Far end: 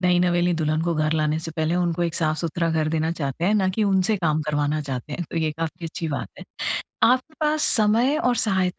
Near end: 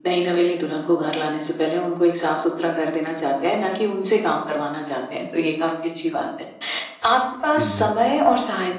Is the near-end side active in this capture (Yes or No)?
Yes